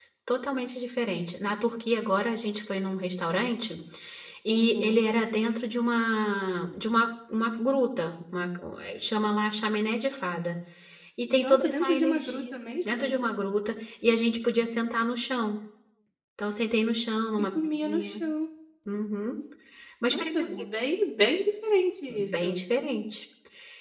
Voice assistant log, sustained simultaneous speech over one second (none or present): present